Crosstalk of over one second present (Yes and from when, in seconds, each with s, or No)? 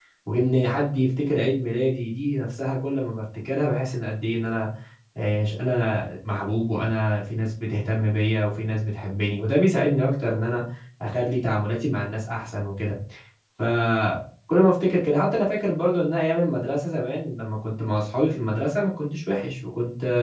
No